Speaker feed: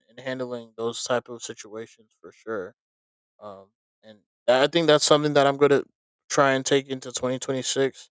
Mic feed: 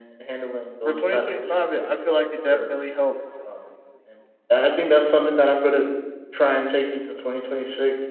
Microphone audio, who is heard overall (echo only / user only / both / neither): both